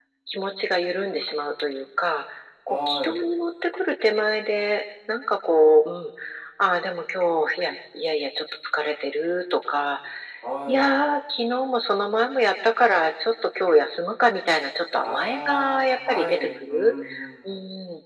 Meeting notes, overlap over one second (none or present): present